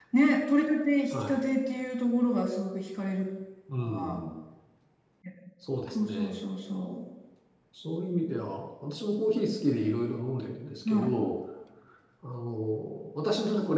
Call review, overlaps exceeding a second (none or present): none